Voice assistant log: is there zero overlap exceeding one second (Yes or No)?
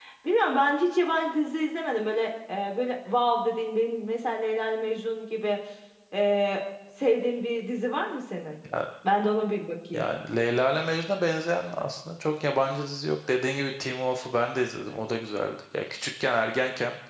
Yes